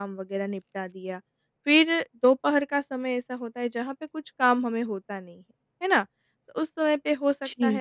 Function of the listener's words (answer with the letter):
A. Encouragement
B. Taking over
A